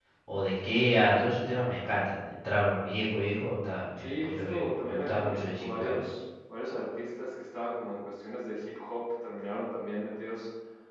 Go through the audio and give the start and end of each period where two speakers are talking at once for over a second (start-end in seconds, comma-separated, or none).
4.0-6.0